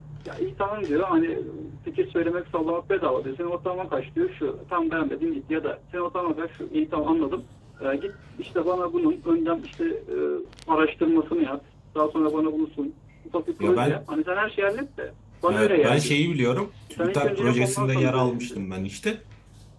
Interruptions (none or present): present